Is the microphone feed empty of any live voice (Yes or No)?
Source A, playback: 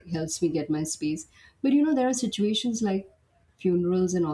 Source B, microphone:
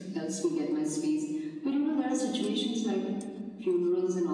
Yes